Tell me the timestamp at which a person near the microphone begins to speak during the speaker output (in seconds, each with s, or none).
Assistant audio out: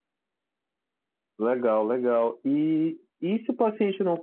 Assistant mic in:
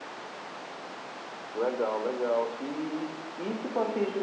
none